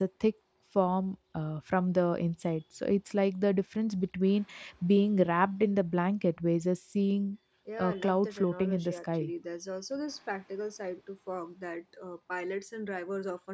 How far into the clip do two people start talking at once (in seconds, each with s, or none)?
7.8 s